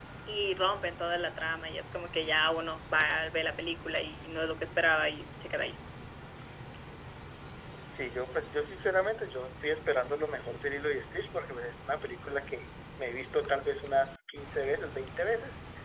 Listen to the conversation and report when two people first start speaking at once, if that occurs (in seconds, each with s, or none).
none